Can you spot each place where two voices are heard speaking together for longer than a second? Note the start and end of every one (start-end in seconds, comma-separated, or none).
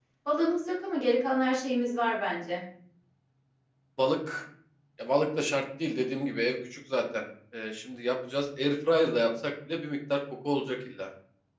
none